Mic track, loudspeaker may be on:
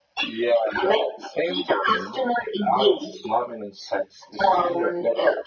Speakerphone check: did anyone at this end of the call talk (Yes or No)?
No